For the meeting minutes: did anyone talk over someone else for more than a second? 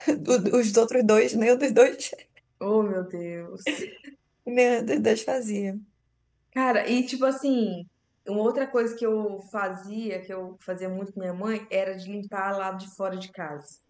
No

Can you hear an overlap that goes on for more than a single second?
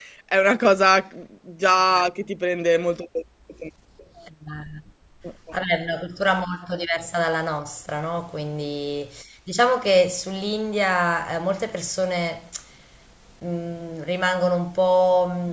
No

